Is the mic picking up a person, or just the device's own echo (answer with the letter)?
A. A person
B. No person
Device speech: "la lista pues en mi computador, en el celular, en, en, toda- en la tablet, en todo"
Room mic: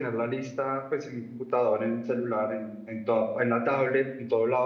B